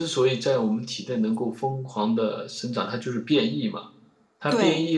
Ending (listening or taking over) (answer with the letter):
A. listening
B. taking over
A